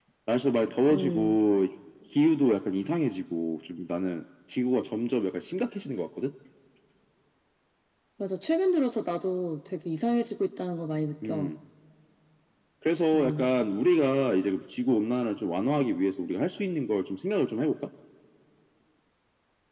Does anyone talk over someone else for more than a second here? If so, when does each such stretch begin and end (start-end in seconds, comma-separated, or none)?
none